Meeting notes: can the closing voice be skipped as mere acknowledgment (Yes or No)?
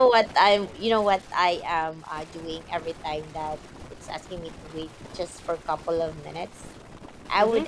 Yes